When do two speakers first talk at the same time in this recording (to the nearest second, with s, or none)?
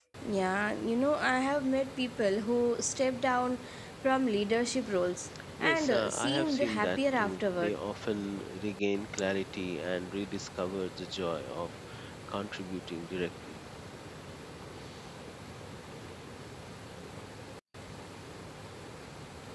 6 s